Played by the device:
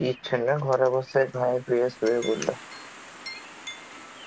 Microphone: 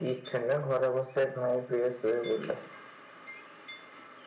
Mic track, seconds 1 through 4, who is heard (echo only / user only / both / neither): echo only